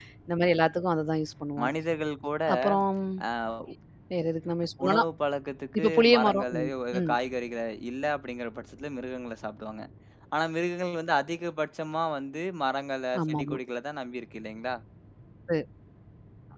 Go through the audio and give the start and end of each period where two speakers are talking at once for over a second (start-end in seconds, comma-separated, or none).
5.8-7.1